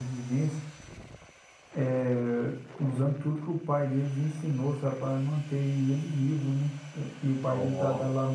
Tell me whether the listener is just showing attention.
Yes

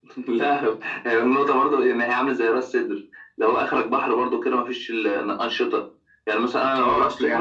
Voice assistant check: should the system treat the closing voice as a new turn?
Yes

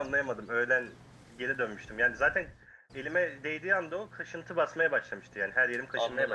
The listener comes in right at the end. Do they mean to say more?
Yes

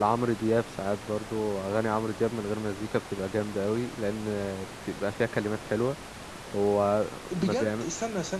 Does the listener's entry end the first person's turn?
Yes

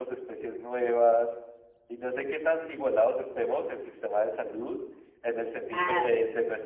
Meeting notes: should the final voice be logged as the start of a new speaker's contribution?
No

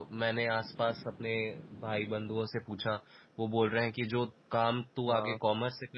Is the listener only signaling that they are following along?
Yes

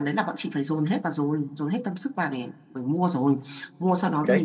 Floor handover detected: No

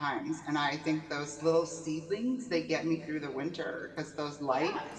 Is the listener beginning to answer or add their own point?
No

